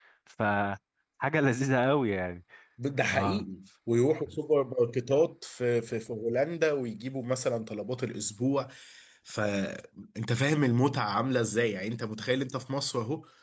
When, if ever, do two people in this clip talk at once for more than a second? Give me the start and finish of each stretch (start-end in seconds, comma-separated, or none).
none